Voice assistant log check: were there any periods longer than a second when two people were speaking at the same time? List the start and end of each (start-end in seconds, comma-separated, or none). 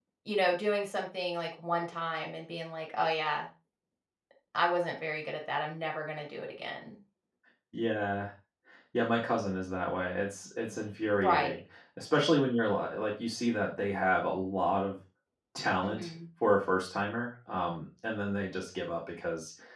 none